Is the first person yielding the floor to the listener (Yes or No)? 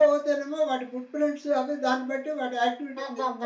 Yes